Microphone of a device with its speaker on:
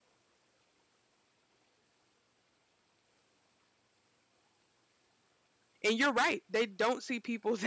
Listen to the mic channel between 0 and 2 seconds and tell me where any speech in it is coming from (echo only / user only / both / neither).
neither